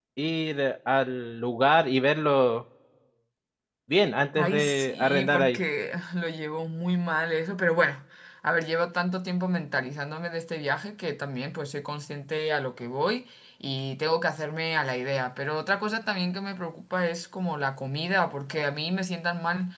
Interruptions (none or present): present